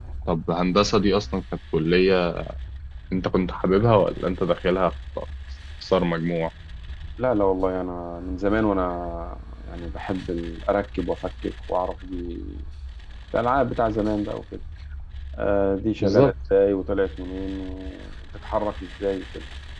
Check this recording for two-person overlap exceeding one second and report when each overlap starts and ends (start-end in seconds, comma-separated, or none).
none